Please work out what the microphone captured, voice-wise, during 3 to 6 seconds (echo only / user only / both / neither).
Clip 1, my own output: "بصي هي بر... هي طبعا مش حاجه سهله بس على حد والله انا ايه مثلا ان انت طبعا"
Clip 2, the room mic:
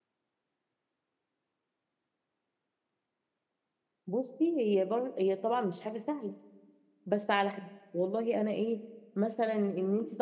echo only